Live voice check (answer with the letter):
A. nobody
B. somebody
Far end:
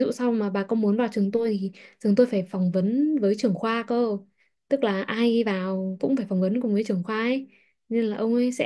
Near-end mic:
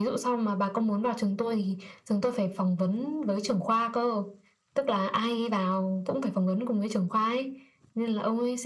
A